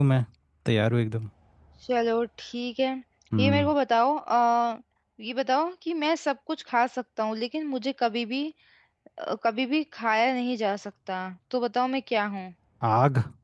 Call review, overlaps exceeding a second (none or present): none